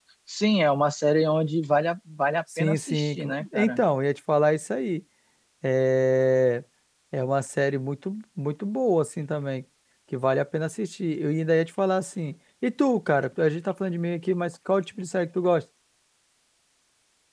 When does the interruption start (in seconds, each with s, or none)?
2.5 s